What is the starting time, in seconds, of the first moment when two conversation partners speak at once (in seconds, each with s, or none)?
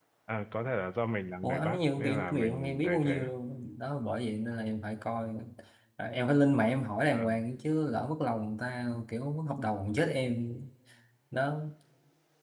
1.4 s